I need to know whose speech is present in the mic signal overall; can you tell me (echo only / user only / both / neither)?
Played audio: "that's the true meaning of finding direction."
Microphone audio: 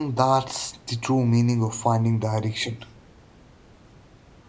echo only